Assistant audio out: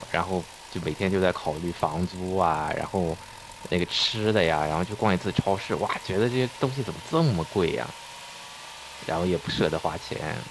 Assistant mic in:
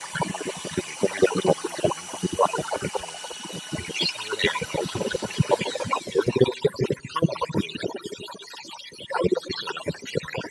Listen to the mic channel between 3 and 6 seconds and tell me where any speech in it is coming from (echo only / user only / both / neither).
echo only